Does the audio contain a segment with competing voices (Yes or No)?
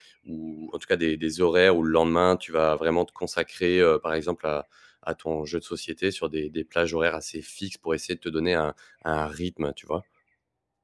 No